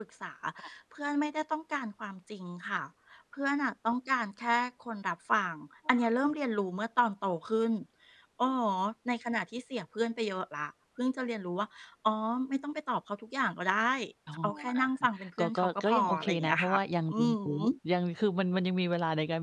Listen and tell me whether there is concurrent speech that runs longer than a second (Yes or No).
Yes